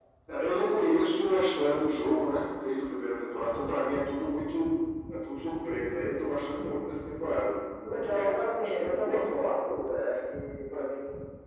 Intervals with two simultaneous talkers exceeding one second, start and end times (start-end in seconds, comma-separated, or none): 7.8-9.2